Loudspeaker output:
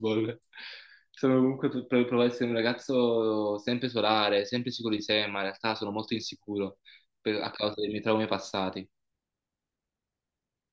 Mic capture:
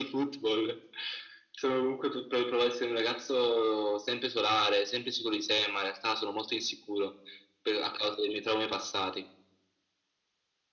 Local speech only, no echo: none

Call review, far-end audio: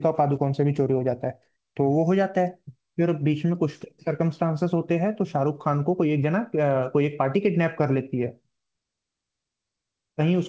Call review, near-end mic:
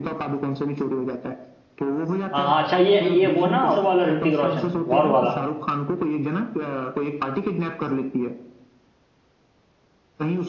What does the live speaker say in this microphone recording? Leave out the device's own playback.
हाँ, अच्छा ये ये वो ना और वाला ऋतिक रोशन वॉर वाला

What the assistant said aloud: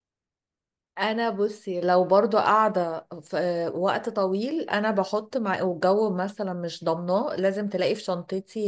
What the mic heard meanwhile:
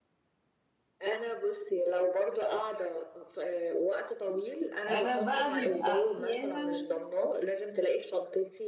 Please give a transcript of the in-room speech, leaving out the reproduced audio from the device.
انا بقى بيبقى احيانا

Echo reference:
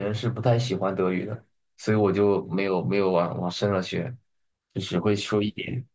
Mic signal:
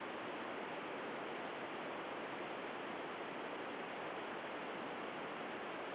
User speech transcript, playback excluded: none

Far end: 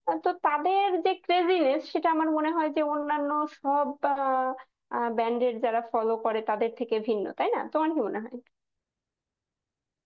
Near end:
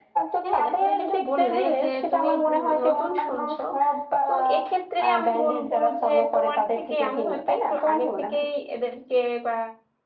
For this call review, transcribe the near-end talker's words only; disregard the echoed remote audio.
হ্যাঁ তুমি যেটা বললে যে তুমি নতুন শুনছো তো এক্ষেত্রে আমি বলবো যে তোমার থেকে আমি হয়তো একটু আগে থেকেই এদেরকে বা

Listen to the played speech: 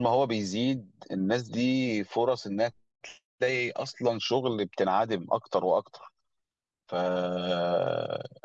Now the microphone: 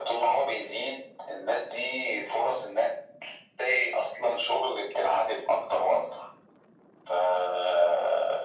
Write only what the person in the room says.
none

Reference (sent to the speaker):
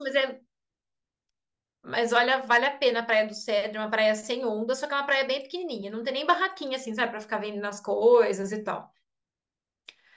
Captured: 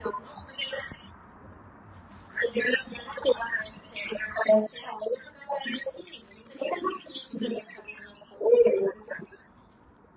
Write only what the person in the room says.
none

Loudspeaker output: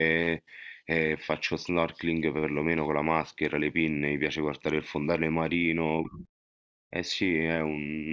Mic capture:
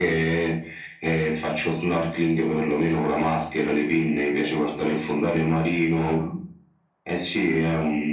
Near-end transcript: none

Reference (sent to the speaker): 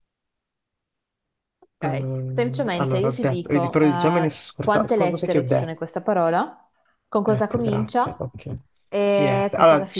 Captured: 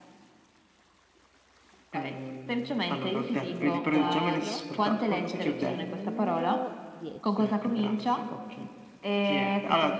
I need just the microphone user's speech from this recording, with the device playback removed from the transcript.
numero 4 e numero 10.

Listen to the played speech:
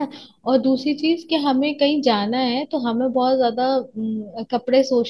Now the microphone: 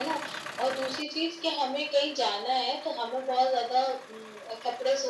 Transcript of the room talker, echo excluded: none

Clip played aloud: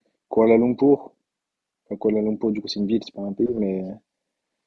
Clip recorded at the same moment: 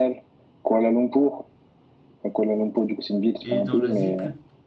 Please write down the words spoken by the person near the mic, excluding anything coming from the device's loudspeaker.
Et dans l'Asie, plus

